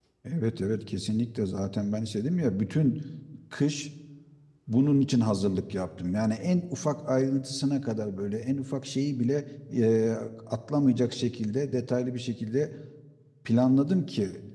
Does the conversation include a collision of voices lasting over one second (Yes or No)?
No